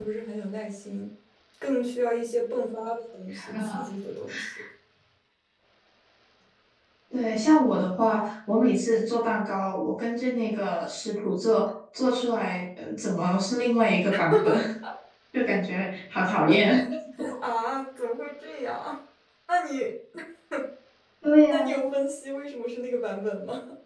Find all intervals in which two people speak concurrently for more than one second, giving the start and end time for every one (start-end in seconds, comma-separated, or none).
none